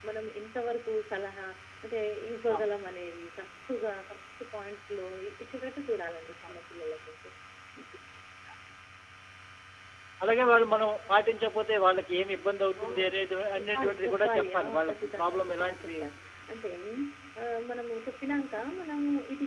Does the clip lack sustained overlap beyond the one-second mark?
No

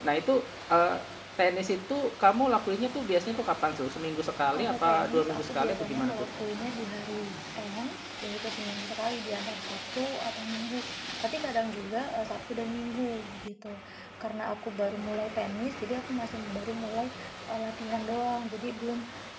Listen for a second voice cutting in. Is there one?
Yes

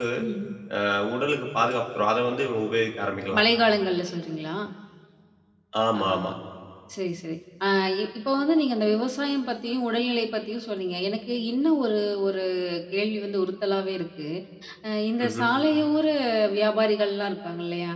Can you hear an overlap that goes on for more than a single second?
No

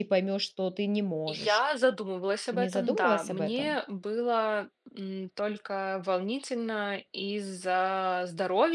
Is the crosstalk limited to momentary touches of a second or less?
No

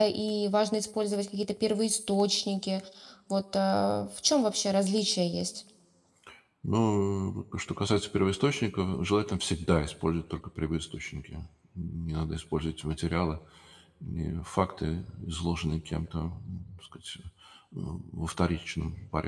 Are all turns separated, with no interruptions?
Yes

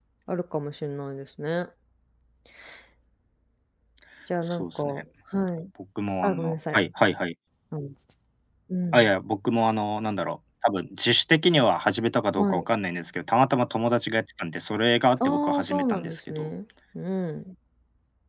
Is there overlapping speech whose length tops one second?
Yes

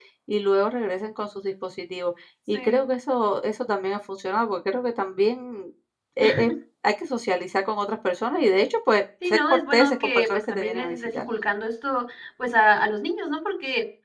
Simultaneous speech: Yes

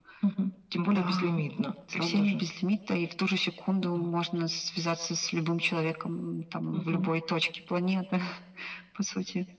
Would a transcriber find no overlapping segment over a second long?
Yes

